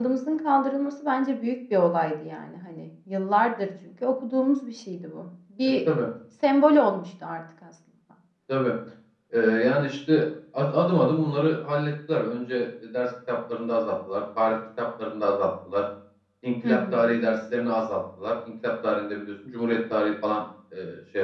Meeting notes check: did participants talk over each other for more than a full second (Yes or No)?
No